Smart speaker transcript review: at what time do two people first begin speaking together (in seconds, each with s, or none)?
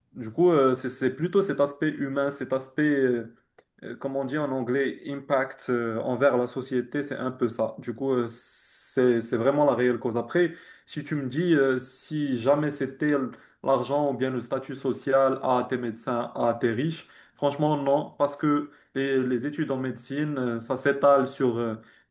none